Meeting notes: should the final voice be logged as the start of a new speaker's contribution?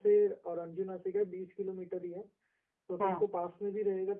No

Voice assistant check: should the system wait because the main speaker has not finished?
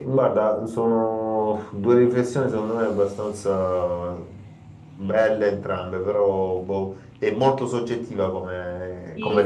No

